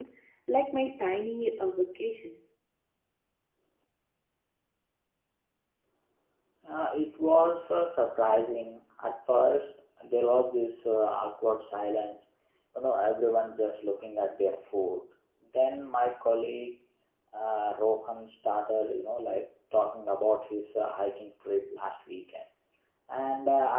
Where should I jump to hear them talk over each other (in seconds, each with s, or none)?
none